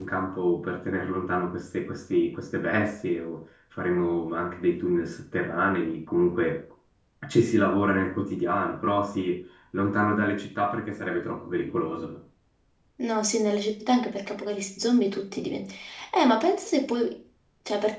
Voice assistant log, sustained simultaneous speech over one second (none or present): none